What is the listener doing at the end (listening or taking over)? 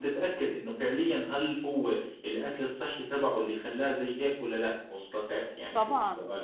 taking over